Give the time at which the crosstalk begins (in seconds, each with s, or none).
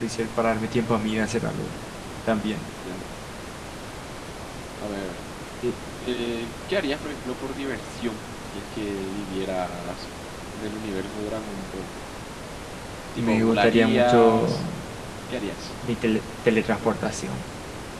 13.2 s